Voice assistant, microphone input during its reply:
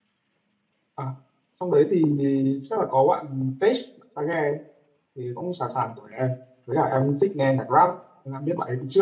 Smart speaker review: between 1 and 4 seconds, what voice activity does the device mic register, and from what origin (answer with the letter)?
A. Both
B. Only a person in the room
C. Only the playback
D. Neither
B